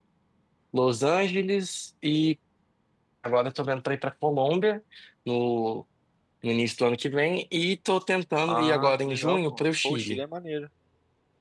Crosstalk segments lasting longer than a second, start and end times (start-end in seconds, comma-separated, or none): 8.5-10.2